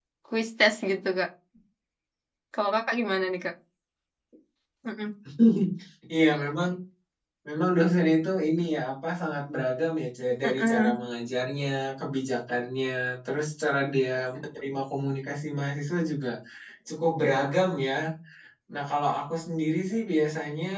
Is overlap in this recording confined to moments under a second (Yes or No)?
Yes